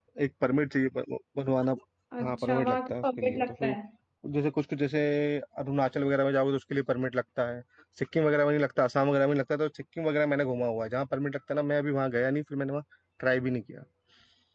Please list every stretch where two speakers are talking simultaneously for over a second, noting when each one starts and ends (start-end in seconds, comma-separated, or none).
2.2-3.7